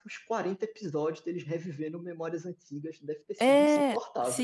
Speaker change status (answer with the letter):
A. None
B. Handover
B